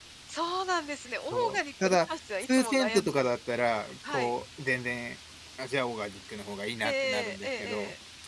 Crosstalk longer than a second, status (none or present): present